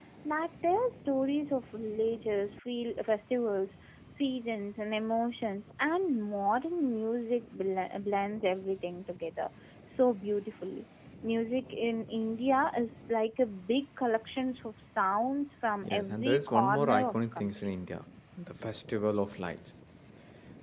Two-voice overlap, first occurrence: 15.8 s

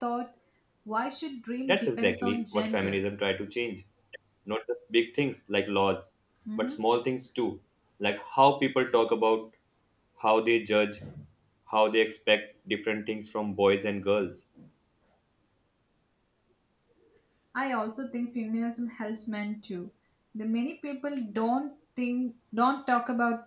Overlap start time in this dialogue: 1.7 s

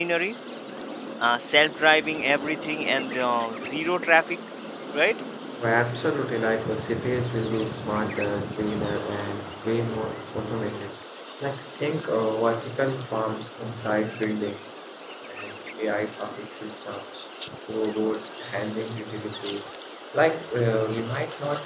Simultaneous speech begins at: none

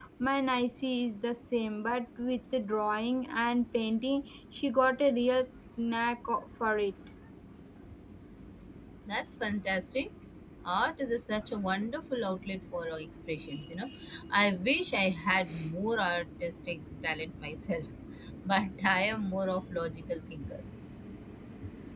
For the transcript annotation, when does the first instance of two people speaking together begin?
none

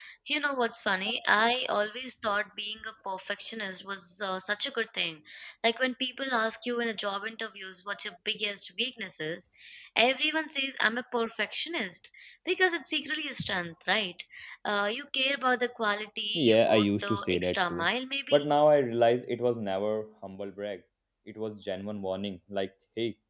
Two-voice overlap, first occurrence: 16.3 s

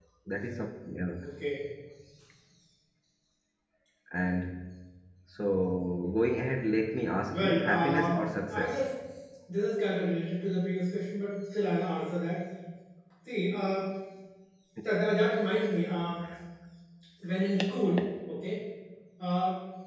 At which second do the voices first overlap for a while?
7.3 s

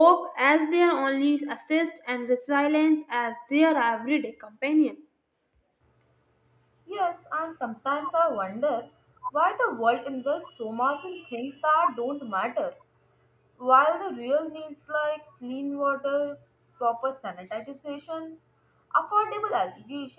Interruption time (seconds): none

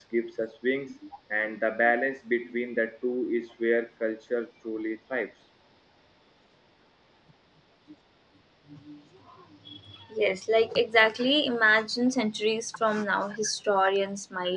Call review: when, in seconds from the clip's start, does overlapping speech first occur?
none

